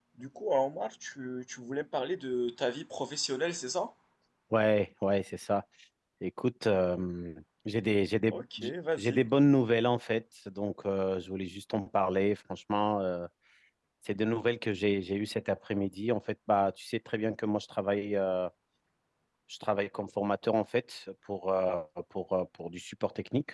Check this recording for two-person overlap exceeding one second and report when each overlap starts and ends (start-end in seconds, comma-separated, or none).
none